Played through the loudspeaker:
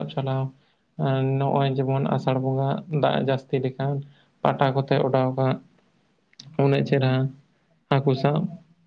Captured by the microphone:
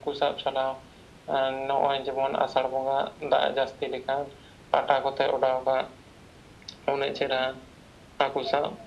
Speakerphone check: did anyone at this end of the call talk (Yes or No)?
No